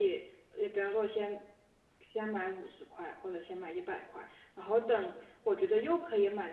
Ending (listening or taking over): listening